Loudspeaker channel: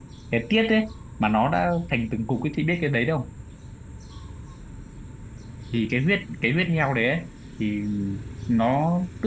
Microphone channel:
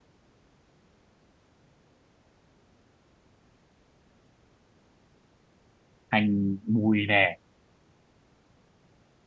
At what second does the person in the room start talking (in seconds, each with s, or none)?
6.1 s